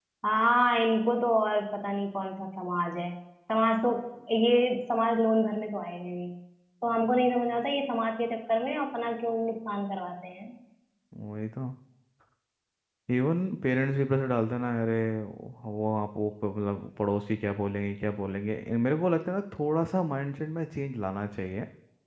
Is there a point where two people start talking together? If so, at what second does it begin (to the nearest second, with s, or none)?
none